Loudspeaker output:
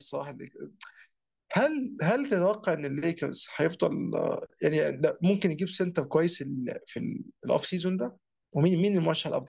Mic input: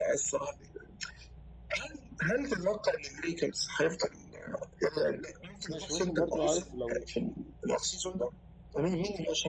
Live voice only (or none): ماشي ممكن برضو عارف لو